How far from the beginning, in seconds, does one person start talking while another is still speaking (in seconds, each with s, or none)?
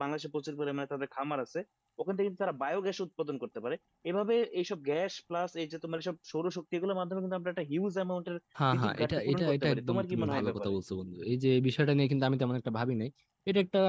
8.6 s